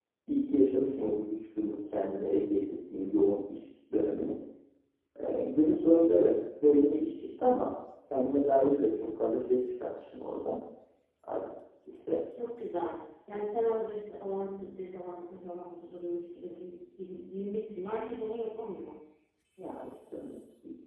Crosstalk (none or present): none